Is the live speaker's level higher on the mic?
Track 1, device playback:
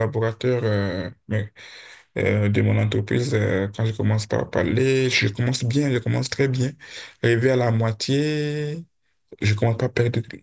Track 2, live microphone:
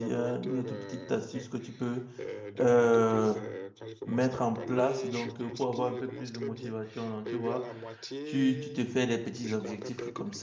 Yes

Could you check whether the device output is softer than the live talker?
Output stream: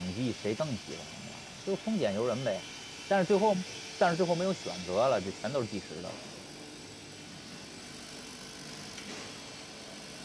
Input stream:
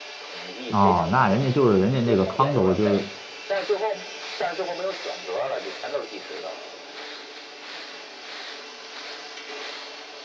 Yes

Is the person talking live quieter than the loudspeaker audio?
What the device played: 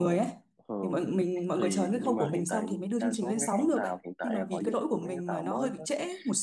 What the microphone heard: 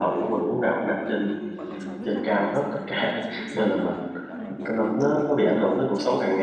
No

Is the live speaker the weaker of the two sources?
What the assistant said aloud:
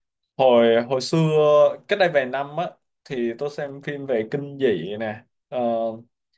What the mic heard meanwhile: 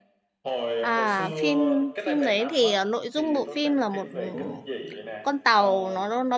No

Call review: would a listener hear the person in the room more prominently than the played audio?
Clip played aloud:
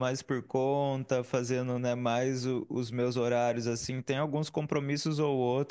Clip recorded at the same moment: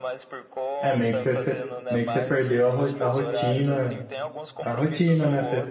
Yes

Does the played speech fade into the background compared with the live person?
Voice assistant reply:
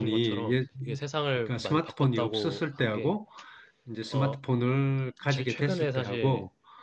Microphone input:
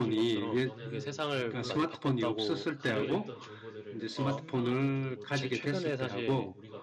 No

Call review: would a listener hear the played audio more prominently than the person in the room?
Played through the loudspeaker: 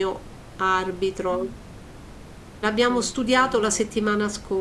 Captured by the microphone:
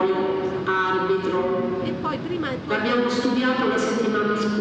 Yes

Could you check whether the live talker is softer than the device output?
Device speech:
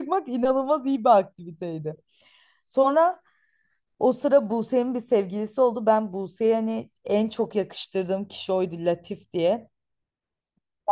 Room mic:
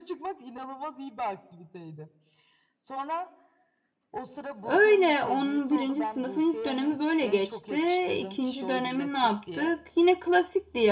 No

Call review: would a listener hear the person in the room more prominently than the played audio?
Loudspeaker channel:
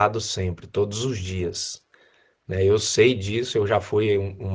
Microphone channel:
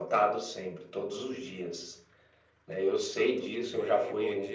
No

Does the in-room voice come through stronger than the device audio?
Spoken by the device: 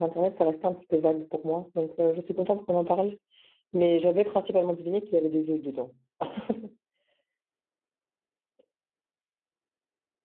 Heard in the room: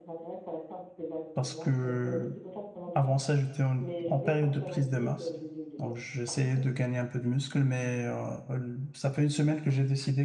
Yes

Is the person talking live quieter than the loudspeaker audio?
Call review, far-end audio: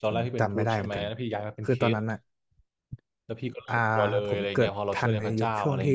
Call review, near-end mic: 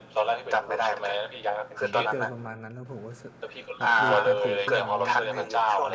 Yes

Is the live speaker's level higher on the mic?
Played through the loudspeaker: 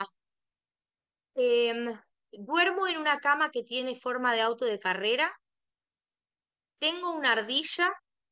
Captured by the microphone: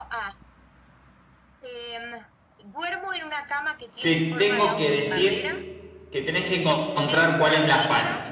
Yes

